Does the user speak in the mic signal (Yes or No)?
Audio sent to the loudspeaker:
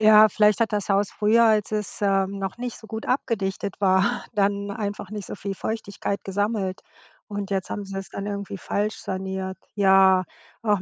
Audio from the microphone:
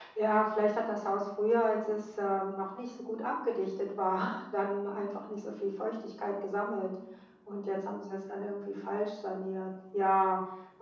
No